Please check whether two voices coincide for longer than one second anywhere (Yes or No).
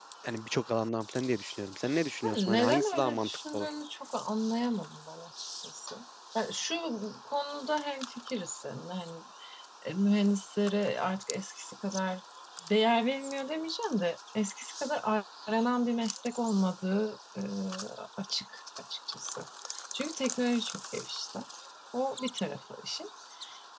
Yes